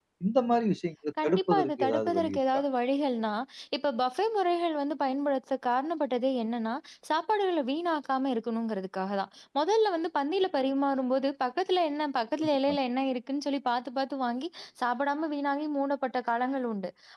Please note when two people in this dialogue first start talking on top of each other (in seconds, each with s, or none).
1.2 s